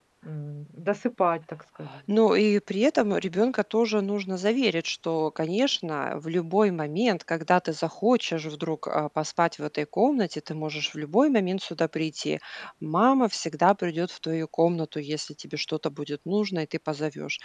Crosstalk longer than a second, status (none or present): none